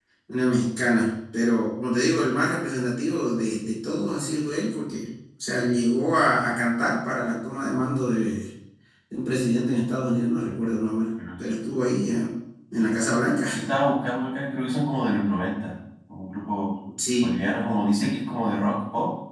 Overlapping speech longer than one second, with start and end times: none

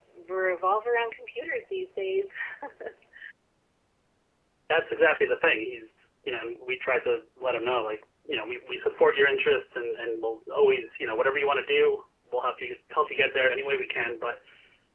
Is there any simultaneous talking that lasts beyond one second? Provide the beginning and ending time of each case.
none

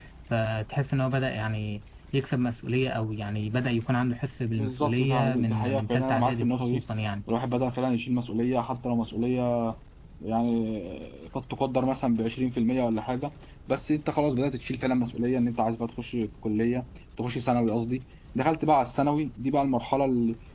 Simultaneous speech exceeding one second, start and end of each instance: 4.6-6.8

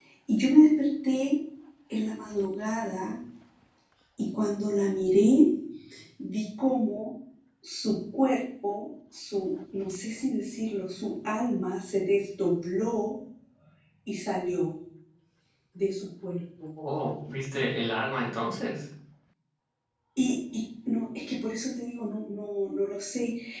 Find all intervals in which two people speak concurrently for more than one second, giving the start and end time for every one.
none

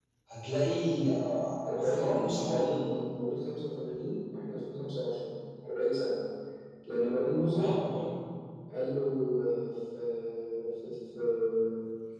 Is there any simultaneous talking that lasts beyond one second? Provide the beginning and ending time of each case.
1.7-3.1

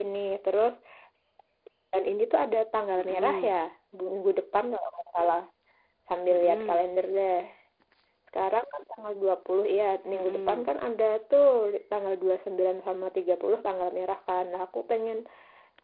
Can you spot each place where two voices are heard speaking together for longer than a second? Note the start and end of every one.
none

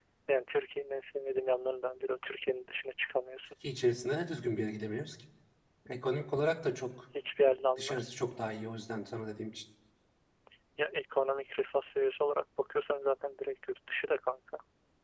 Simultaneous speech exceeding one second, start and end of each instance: none

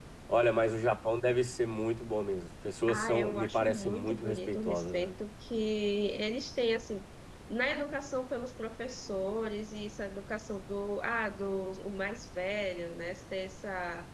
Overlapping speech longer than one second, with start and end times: 2.9-5.1

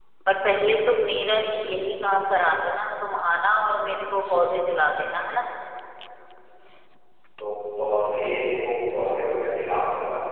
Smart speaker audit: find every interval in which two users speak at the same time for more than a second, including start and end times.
none

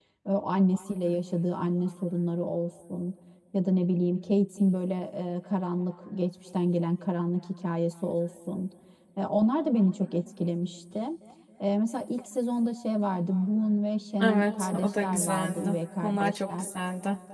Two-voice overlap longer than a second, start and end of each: 14.2-16.6

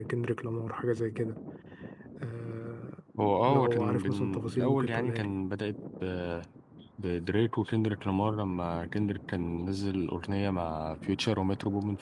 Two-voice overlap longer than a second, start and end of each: 3.5-5.3

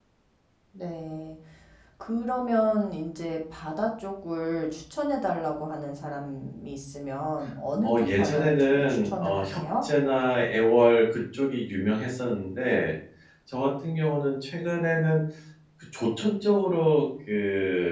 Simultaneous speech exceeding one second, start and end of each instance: 7.8-9.8

